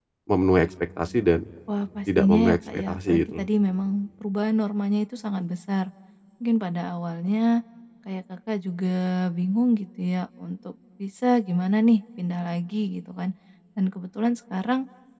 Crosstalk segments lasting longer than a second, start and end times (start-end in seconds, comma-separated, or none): 2.2-3.5